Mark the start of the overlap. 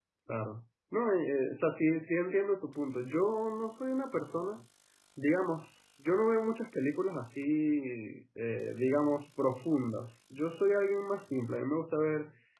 none

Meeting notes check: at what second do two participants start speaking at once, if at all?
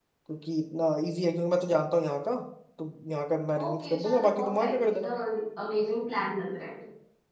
3.6 s

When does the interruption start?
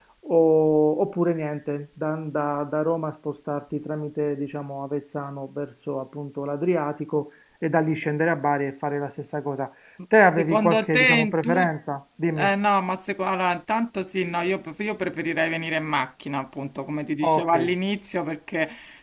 10.4 s

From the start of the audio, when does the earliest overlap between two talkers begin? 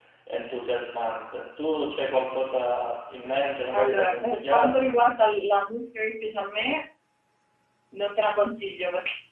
3.7 s

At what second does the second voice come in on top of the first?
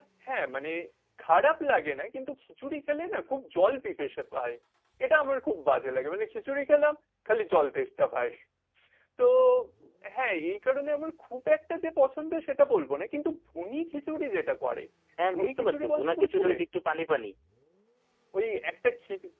15.3 s

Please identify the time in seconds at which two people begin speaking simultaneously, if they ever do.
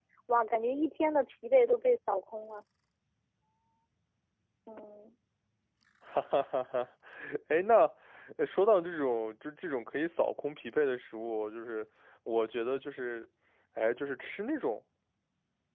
none

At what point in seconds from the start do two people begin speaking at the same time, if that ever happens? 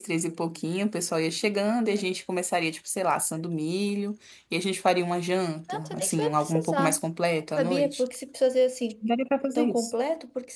5.7 s

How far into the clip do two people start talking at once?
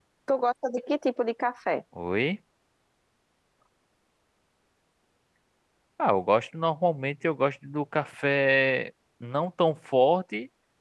none

